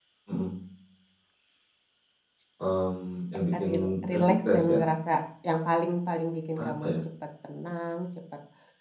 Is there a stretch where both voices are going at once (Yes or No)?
Yes